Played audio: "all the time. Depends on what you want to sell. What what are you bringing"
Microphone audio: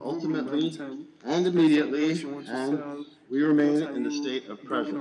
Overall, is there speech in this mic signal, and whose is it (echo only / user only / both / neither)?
both